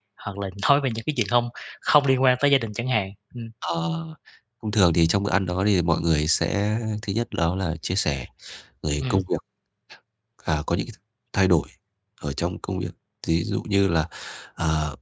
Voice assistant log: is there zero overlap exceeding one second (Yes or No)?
Yes